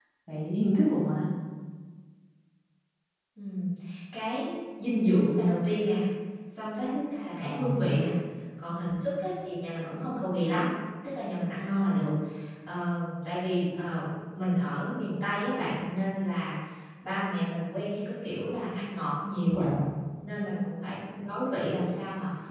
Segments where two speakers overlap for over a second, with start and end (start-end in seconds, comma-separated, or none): none